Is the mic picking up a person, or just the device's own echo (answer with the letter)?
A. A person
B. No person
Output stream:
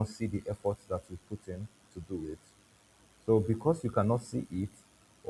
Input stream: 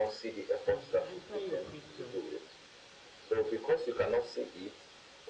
A